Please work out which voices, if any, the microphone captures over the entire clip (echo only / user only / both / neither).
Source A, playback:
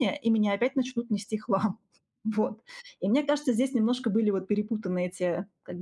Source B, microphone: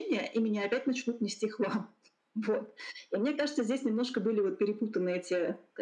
echo only